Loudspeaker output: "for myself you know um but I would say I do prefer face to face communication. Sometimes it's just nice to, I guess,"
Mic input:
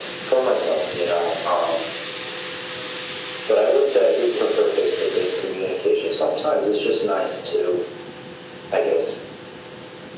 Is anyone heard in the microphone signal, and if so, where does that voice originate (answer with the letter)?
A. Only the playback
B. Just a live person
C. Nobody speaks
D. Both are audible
A